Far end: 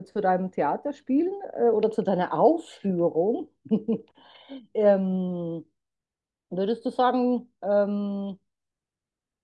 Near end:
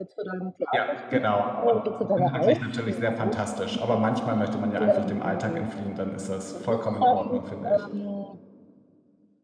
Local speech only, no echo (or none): Ja, genau. Und inhaltlich natürlich sehr fantastisch. Aber manchmal möchte man ja einfach dem Alltag entfliehen, dann ist das vollkommen in Ordnung, finde ich.